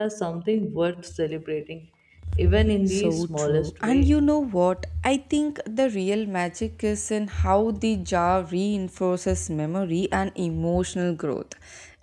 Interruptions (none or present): present